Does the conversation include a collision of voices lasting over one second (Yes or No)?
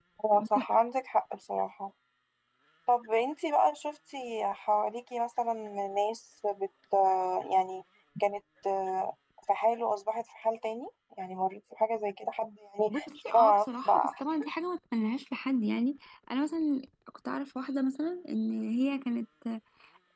Yes